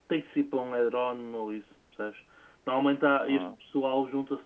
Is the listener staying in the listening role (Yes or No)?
Yes